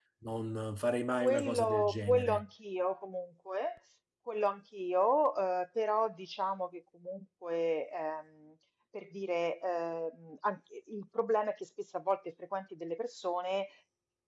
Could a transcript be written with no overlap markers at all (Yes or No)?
No